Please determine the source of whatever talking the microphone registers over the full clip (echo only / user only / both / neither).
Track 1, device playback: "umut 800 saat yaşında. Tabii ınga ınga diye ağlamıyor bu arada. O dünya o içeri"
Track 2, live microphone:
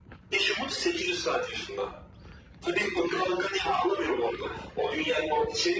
echo only